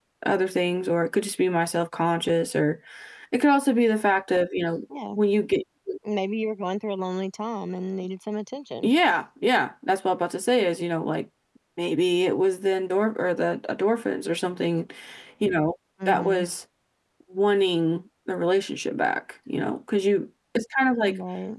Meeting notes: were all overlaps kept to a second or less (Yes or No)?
Yes